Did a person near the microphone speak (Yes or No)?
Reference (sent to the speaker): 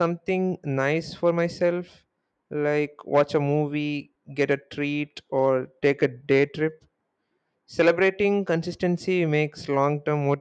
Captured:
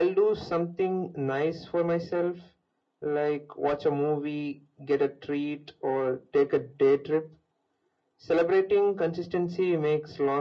No